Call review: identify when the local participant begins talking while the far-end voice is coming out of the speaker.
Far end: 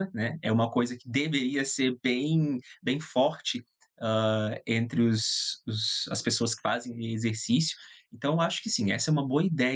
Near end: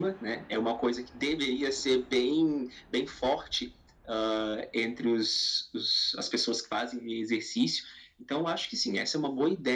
none

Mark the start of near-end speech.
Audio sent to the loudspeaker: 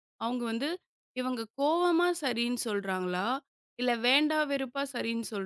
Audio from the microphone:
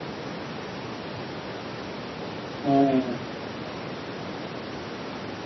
2.6 s

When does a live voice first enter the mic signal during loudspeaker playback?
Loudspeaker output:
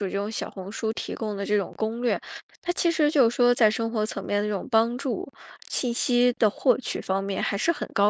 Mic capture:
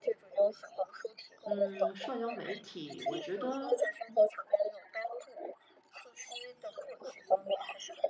1.5 s

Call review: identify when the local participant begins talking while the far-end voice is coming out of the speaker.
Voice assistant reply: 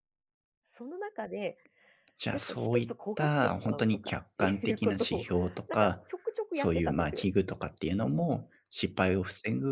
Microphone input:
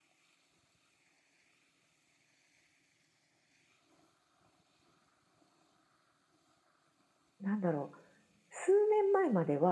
7.4 s

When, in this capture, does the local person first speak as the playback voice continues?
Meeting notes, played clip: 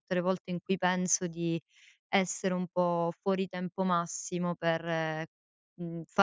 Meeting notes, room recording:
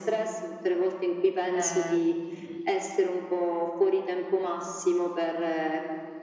1.5 s

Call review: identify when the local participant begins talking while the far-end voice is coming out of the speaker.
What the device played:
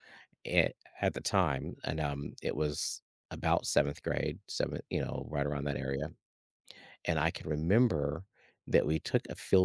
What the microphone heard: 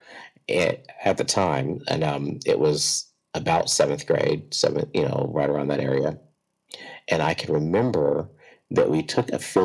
none

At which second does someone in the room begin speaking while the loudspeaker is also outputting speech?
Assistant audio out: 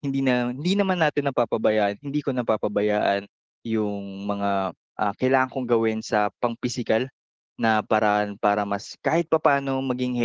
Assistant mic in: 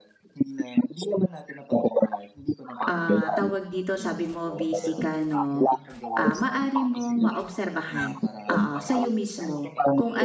2.9 s

